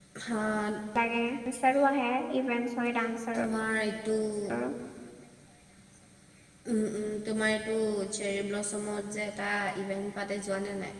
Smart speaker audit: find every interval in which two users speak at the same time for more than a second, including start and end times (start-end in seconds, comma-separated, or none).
none